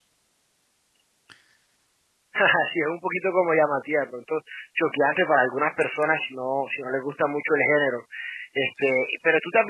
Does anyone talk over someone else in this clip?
No

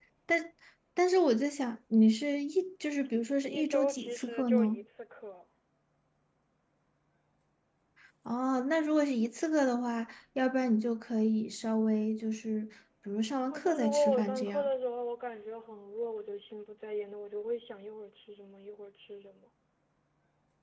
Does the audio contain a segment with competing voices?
Yes, from 3.5 s

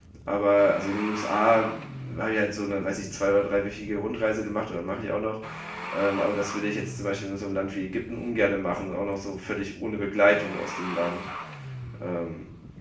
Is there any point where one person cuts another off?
No

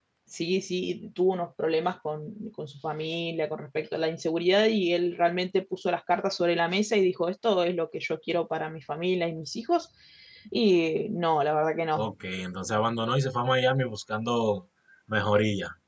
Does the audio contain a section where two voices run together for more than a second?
No

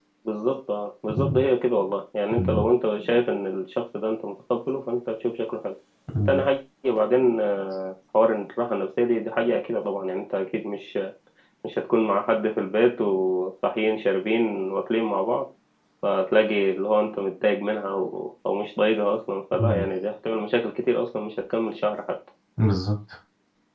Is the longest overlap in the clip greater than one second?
No

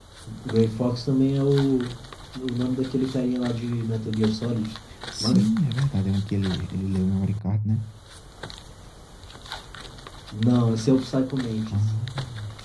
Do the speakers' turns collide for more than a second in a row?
No

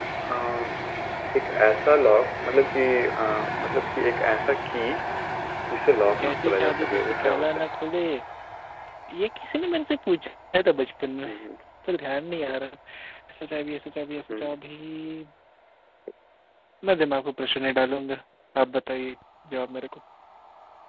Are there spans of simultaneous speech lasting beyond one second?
Yes, from 6.1 s

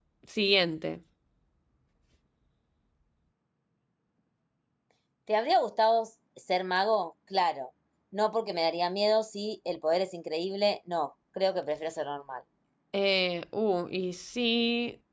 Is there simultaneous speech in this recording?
No

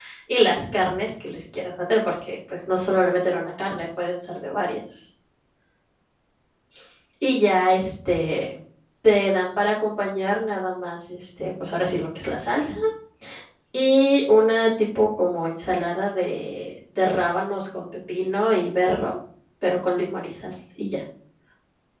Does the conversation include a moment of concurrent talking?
No

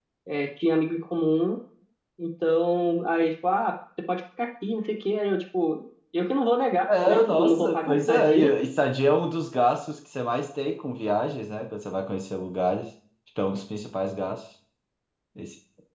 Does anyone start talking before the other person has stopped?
Yes, from 6.9 s

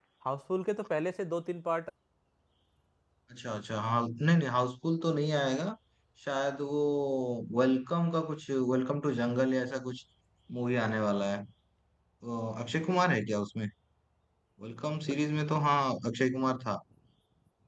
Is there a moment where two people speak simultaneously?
No

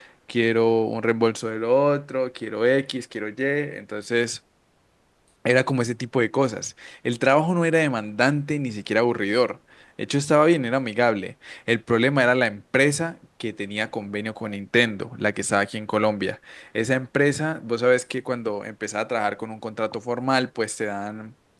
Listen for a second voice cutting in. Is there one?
No

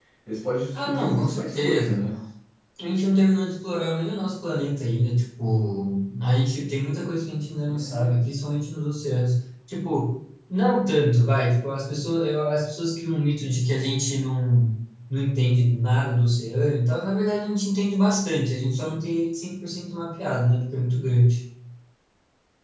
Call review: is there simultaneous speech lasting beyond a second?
Yes, from 0.7 s

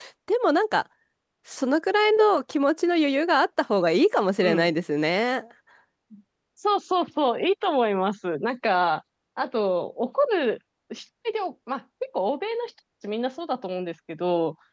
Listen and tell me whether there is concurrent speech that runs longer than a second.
No

